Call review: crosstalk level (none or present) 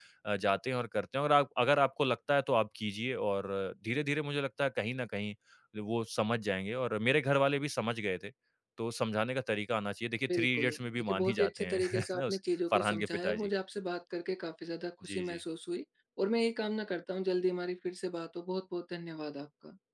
present